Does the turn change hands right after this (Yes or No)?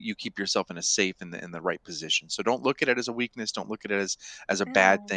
No